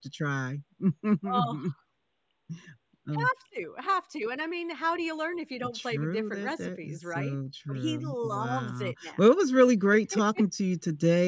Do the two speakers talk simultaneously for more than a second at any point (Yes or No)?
Yes